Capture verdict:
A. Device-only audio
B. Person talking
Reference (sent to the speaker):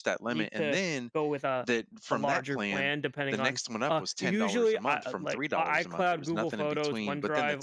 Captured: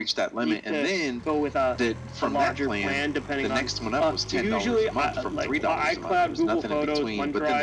A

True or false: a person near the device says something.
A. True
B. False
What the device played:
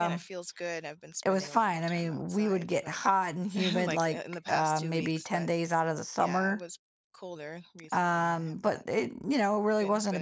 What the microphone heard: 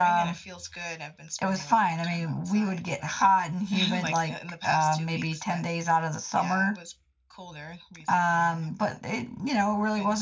B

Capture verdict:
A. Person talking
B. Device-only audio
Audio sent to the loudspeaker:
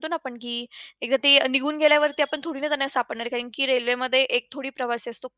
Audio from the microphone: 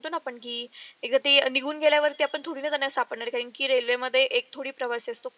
B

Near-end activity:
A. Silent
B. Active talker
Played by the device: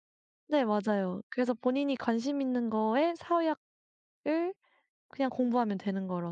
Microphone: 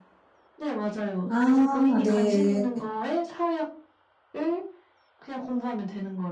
B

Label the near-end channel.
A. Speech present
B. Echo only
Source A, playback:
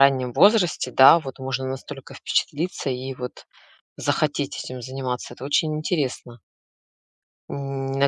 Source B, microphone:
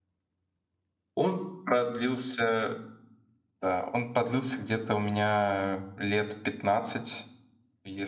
A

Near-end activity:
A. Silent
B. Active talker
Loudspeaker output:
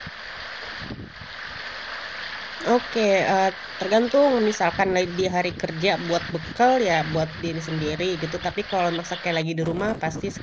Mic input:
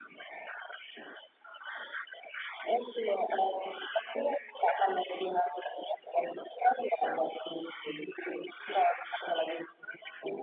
A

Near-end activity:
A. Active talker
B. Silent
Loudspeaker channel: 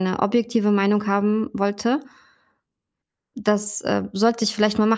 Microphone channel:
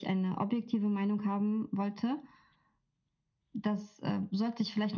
B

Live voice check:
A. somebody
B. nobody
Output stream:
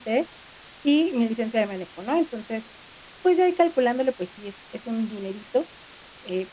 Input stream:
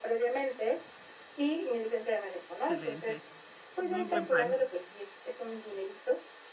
A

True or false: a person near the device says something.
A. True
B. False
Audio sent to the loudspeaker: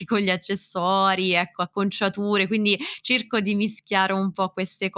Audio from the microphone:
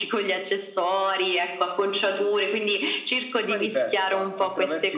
A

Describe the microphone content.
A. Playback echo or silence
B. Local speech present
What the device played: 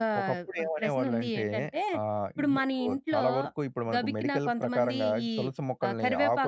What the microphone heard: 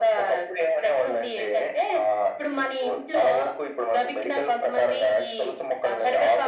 A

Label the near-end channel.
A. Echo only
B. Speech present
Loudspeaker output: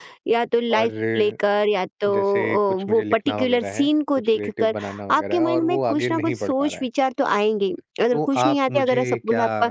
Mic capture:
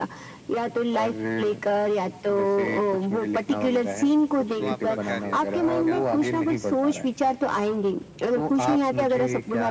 B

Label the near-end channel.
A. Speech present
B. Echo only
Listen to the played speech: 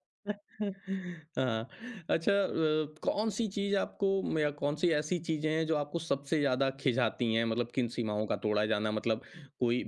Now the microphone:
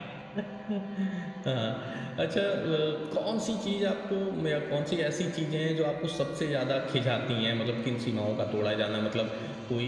B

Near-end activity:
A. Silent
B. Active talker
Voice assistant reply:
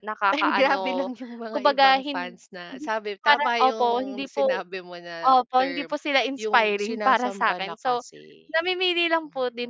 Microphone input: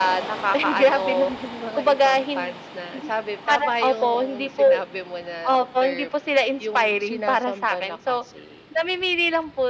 A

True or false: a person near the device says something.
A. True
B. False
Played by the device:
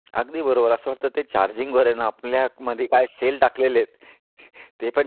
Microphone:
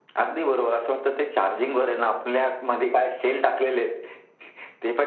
B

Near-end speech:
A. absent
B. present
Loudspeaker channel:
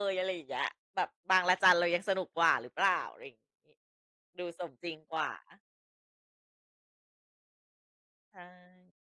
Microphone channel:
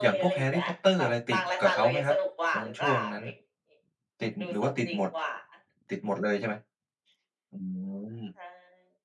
B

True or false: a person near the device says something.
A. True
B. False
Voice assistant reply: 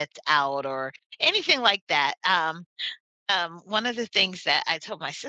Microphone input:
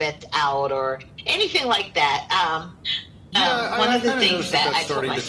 A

